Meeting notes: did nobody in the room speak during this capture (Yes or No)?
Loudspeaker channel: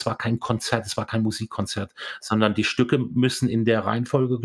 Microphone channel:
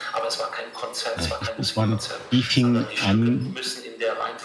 No